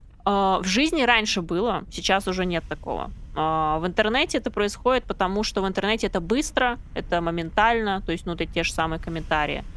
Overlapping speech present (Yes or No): No